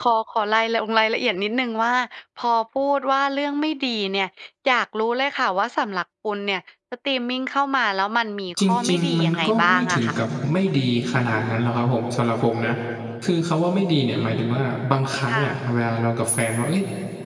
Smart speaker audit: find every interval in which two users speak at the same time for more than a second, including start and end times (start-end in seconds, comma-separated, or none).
8.6-10.2